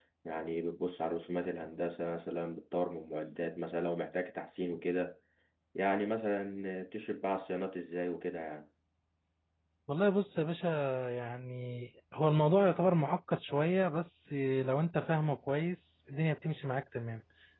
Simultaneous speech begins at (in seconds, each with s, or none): none